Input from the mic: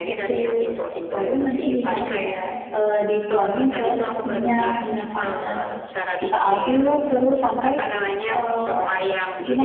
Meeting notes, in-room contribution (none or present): present